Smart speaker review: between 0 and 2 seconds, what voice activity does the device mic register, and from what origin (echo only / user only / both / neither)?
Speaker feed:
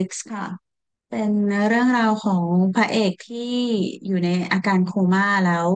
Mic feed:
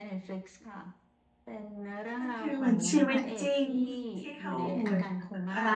echo only